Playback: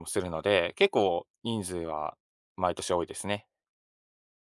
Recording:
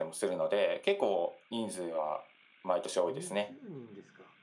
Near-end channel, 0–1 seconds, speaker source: echo only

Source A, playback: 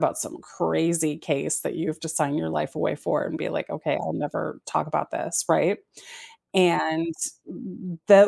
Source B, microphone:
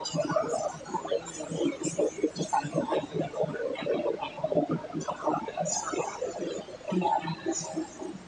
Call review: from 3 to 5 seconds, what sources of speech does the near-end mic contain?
echo only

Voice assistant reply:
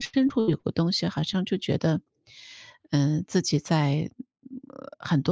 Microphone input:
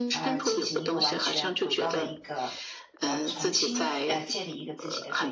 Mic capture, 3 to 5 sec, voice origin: both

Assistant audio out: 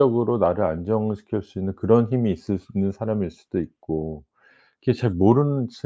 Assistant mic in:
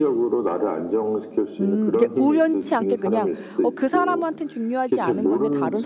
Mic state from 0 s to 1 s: echo only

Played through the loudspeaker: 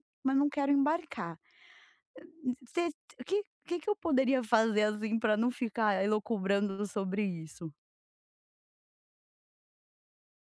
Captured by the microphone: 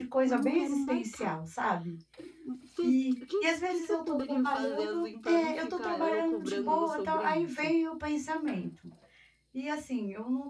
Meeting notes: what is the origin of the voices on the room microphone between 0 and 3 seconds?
both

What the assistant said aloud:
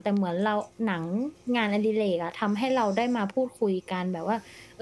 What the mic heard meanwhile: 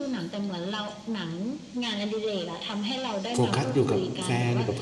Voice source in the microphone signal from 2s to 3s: echo only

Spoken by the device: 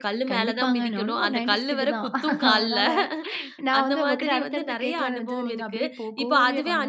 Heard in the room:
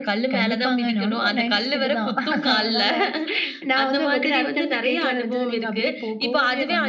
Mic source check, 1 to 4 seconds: echo only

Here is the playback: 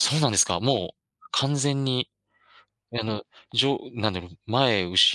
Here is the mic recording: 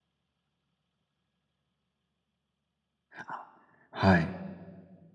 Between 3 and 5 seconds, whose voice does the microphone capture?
user only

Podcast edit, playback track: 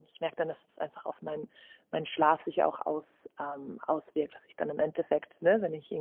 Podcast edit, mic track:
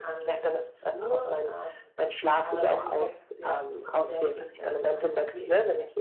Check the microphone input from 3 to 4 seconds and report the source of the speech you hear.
both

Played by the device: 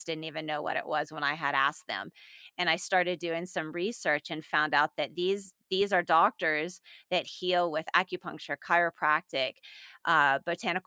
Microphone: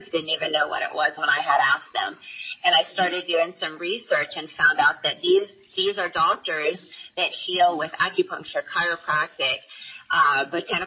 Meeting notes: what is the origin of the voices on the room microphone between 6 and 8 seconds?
echo only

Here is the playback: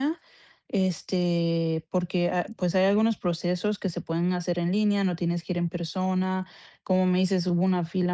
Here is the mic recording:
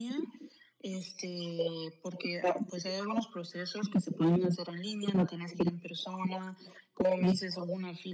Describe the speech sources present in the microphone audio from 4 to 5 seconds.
echo only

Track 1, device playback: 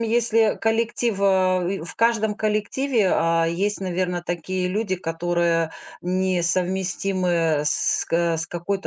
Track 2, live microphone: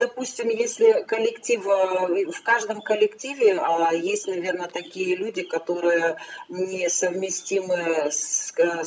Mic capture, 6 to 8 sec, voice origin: echo only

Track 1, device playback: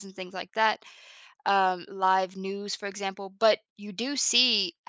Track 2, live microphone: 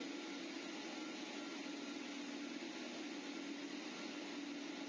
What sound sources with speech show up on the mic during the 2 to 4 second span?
neither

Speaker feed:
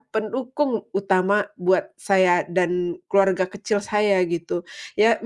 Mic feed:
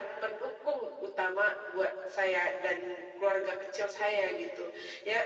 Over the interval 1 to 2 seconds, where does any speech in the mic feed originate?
echo only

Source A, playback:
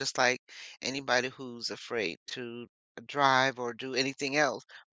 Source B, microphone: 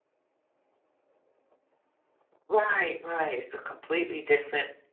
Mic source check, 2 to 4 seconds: user only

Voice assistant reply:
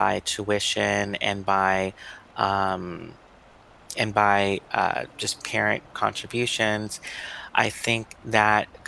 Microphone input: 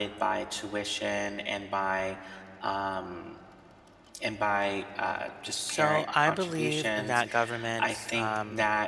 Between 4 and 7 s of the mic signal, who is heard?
both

